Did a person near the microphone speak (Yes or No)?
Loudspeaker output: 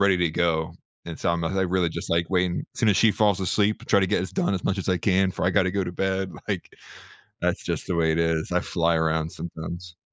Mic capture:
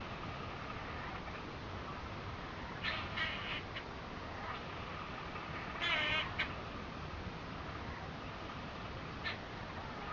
No